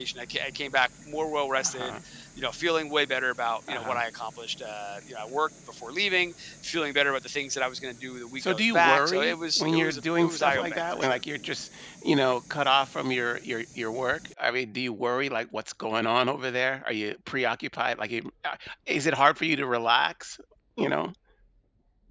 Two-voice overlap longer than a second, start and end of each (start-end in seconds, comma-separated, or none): 8.4-11.2